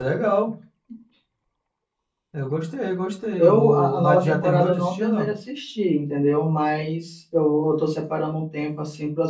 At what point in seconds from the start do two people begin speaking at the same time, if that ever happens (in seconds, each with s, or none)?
3.4 s